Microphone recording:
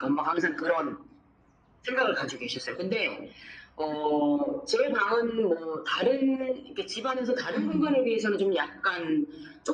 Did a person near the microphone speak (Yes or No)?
Yes